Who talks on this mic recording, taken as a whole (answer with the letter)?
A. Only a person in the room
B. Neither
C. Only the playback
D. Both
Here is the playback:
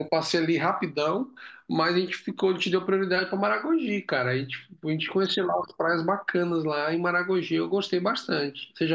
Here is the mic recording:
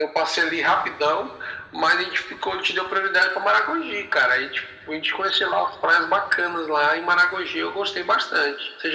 C